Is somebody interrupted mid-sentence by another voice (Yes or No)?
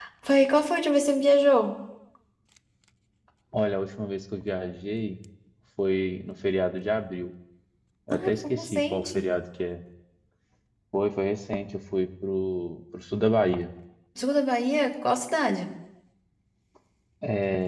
Yes